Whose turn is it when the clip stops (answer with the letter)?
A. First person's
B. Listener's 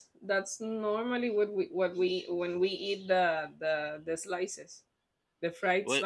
A